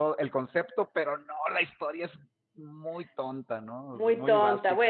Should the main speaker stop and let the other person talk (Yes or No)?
Yes